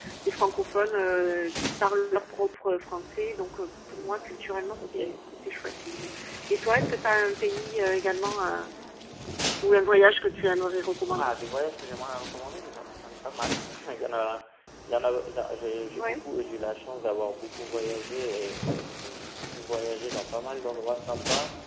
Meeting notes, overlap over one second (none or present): none